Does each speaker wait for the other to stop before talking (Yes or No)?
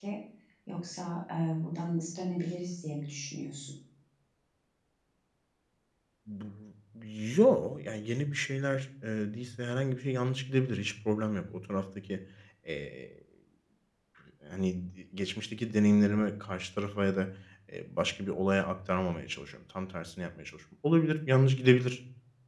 Yes